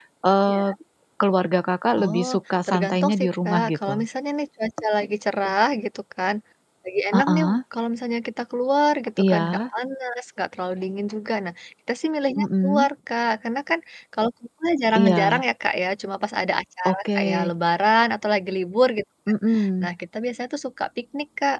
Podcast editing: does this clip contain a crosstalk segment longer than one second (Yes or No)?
Yes